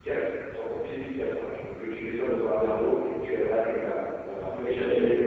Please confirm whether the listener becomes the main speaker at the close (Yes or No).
Yes